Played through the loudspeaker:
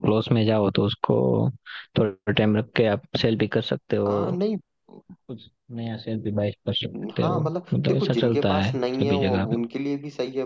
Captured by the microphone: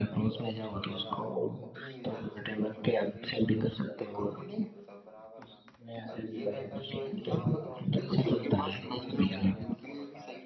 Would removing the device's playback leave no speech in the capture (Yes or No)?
No